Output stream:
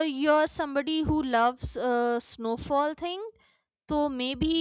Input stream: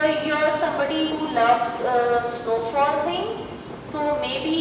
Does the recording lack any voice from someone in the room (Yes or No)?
Yes